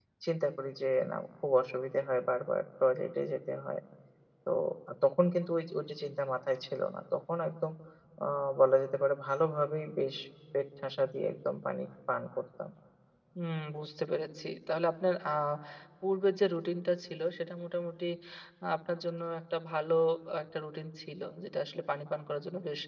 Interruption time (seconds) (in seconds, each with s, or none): none